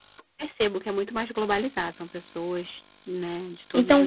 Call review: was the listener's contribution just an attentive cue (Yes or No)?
No